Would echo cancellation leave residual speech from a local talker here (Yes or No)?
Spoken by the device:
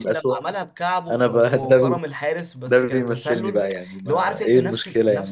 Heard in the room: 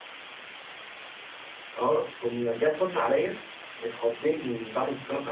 Yes